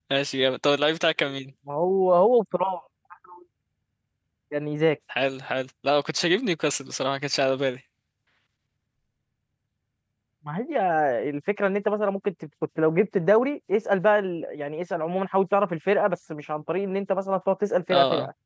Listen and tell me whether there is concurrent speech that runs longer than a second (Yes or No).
No